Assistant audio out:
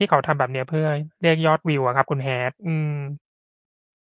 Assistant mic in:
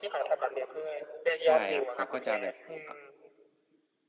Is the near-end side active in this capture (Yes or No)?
Yes